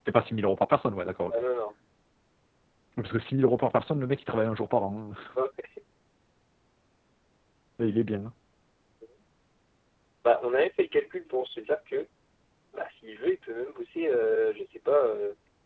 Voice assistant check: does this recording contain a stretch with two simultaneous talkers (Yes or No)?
No